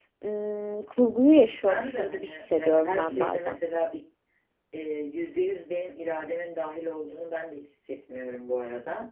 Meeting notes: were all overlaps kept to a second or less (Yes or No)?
No